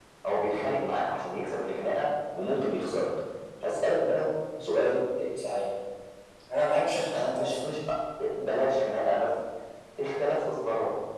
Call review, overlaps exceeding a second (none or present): none